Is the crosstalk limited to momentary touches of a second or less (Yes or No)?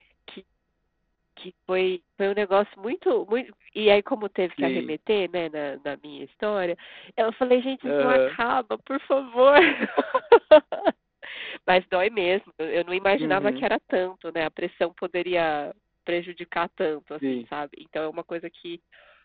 Yes